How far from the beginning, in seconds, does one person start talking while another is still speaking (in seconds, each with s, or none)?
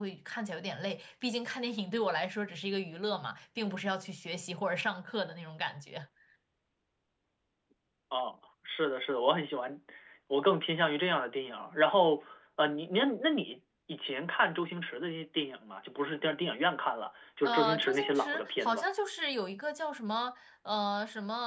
17.4 s